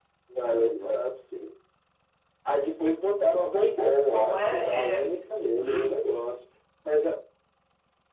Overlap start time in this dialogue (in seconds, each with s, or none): 3.5 s